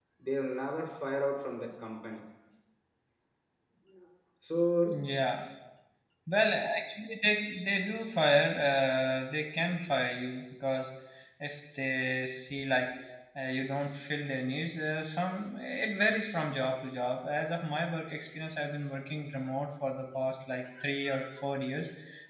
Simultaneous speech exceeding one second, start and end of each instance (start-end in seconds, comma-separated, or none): none